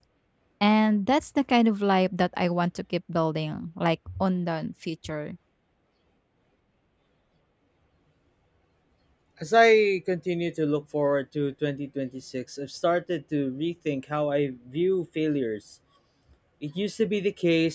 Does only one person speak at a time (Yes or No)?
Yes